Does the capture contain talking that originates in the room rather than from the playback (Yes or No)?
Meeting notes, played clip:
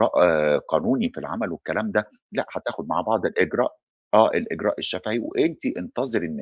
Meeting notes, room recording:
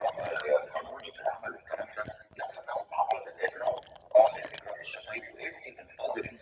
No